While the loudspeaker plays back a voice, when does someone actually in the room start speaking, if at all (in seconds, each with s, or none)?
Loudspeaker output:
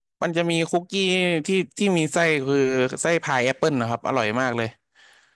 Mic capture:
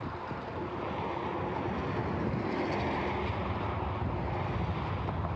none